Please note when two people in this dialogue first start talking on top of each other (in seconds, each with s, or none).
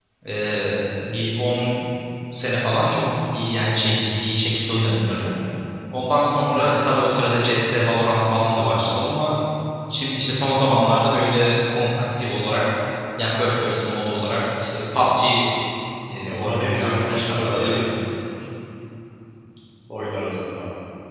16.2 s